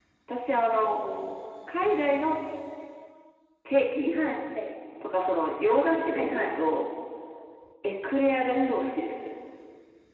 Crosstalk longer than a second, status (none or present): none